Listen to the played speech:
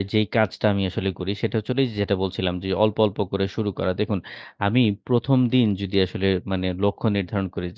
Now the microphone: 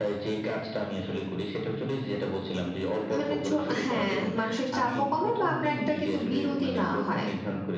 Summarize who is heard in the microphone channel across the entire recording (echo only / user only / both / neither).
both